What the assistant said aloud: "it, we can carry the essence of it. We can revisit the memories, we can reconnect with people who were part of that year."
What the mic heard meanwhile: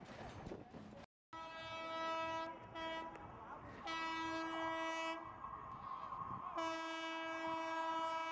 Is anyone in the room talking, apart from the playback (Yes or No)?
No